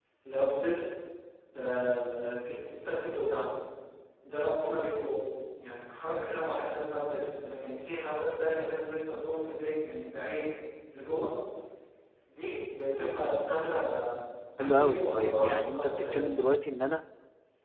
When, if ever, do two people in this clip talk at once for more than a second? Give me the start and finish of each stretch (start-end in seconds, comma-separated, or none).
14.6-16.3